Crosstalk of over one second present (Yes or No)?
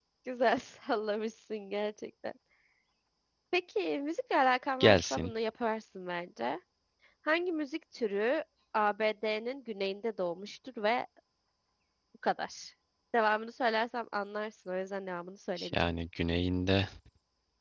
No